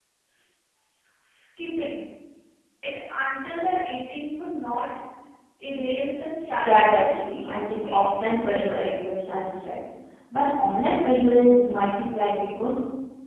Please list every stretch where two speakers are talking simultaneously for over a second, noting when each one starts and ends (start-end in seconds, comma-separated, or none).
6.6-9.0